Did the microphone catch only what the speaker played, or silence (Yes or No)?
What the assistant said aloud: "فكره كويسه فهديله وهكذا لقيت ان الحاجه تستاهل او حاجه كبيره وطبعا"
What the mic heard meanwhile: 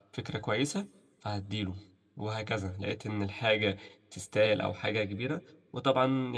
Yes